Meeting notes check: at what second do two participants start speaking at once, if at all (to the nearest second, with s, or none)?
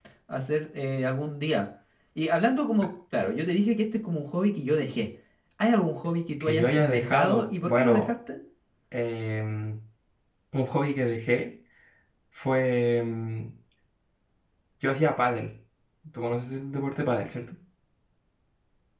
6 s